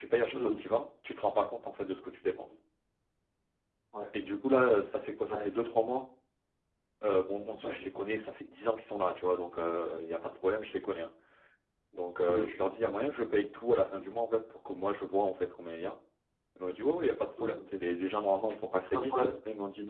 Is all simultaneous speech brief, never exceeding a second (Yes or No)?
Yes